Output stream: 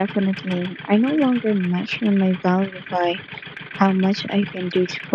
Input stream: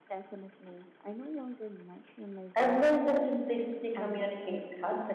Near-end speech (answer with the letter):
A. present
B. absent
A